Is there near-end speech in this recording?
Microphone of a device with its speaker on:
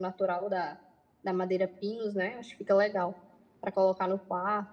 Yes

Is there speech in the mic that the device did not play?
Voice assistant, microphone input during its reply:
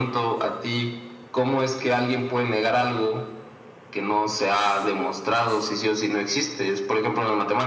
No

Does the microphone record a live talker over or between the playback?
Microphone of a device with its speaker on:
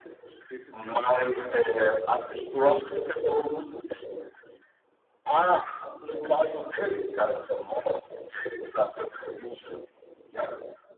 Yes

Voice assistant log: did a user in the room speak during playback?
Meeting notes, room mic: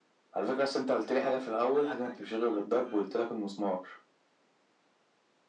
Yes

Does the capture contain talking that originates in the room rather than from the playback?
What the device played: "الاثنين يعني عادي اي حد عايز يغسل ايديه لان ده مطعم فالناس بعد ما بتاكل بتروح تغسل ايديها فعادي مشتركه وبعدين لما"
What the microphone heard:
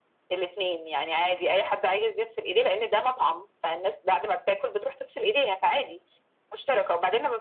No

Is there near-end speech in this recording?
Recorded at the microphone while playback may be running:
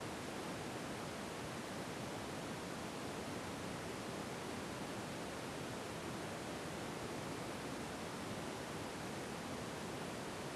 No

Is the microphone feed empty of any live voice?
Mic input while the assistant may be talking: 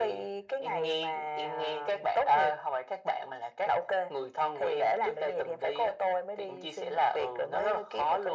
Yes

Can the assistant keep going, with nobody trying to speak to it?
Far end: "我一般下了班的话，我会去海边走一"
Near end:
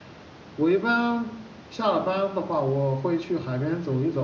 Yes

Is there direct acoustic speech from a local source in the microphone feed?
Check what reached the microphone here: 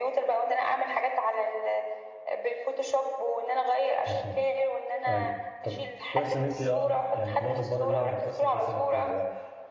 Yes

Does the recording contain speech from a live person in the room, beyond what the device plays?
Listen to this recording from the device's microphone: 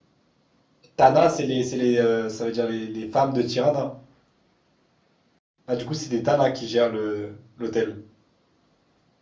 Yes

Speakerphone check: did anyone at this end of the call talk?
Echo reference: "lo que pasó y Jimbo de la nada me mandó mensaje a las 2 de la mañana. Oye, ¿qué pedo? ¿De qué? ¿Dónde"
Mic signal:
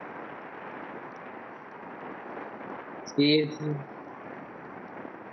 Yes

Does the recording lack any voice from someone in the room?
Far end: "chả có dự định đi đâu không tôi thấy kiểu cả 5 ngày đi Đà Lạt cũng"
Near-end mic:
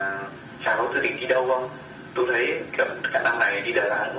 Yes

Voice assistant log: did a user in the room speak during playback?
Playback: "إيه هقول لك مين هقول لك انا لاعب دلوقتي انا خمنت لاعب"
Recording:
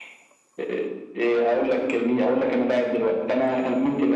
No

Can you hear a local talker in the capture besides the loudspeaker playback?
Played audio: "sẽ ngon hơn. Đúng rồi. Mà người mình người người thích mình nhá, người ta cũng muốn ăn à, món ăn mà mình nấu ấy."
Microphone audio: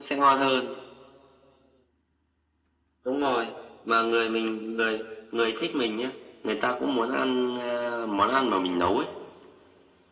No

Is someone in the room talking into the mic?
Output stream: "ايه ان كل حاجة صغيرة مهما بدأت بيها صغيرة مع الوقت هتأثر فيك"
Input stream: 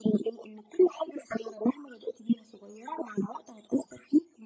No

